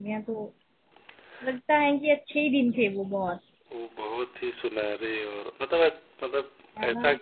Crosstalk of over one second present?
No

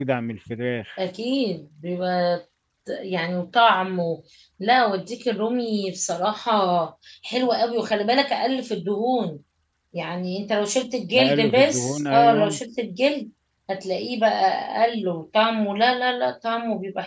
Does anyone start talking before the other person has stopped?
Yes, from 11.1 s

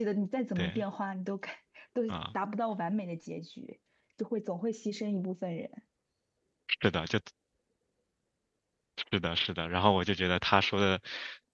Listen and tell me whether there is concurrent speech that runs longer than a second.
No

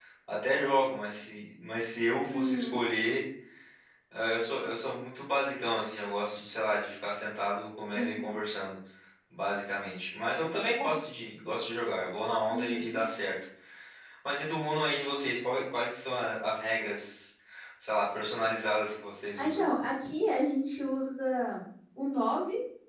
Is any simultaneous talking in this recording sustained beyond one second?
No

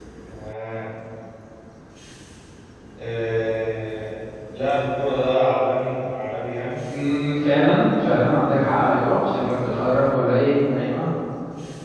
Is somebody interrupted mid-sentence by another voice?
No

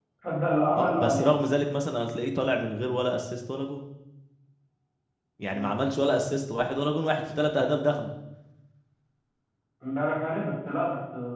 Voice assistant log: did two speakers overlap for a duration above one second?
No

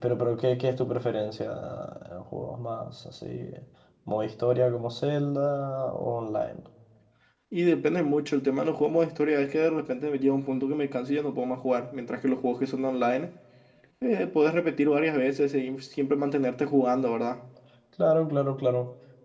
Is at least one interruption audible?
No

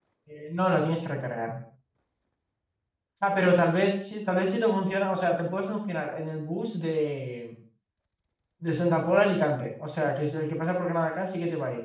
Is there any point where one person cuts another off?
No

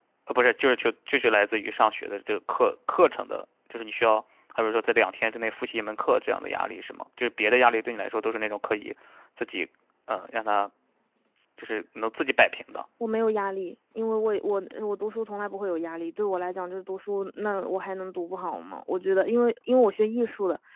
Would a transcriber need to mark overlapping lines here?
No

